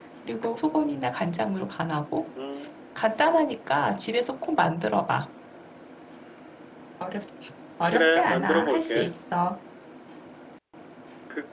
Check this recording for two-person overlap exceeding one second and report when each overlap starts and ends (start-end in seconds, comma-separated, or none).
7.9-9.1